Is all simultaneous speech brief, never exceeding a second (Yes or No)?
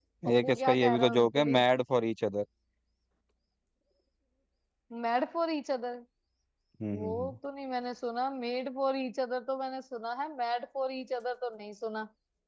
No